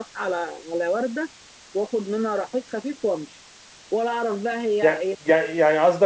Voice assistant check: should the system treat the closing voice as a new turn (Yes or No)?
Yes